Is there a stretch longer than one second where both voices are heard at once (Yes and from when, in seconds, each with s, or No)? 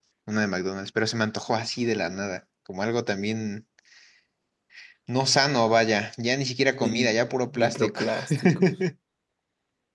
Yes, from 6.8 s